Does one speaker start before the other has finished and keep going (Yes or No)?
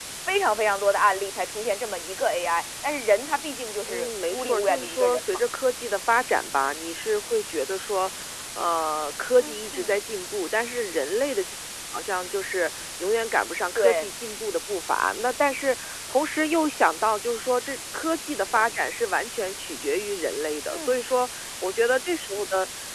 Yes